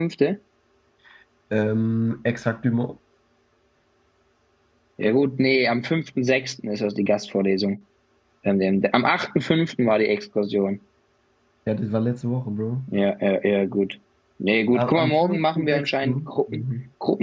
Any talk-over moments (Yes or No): Yes